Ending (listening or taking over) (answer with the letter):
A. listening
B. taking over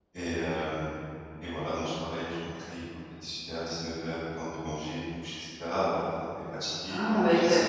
B